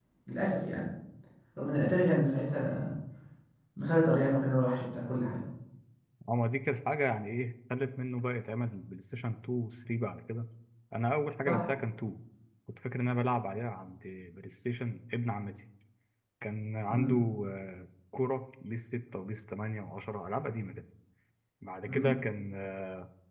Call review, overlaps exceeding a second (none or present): none